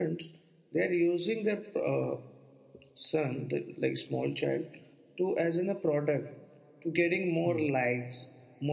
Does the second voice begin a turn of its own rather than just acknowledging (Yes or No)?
No